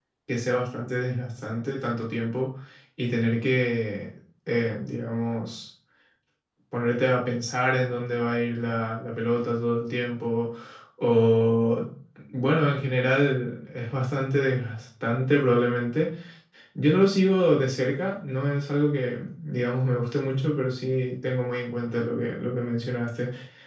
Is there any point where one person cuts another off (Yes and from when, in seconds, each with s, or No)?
No